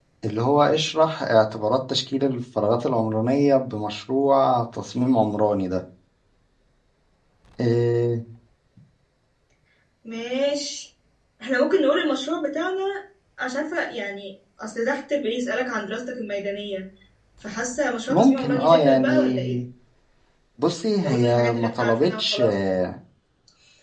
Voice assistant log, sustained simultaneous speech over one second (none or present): present